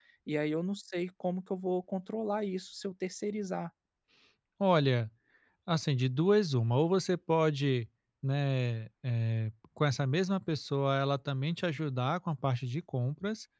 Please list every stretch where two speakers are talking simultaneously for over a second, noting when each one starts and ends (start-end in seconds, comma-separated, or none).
none